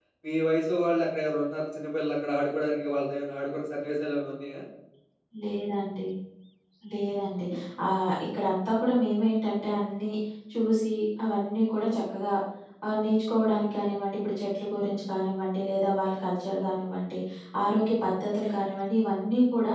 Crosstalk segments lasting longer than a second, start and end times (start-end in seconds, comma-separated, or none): none